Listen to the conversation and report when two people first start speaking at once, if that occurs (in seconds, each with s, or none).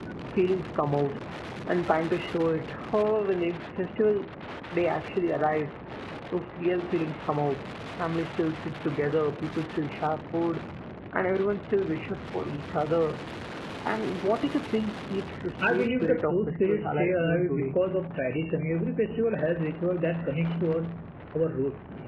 15.6 s